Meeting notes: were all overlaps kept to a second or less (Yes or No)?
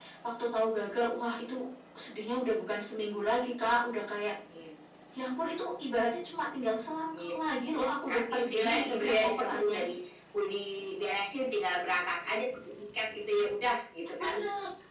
No